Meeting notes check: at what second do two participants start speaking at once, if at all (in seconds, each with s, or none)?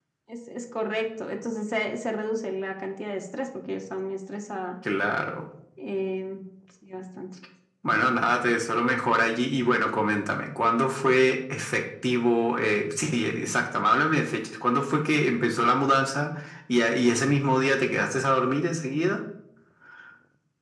none